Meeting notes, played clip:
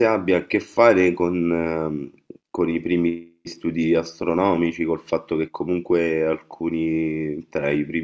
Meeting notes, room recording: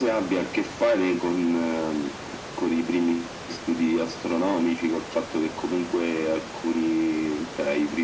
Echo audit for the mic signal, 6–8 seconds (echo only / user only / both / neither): echo only